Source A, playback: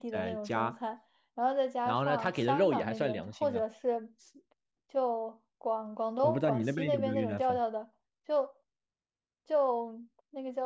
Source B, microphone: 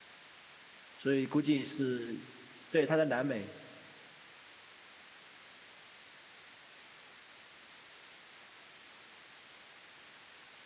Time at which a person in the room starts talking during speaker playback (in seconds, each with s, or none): 1.0 s